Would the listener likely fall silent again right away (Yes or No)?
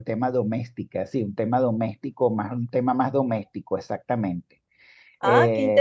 No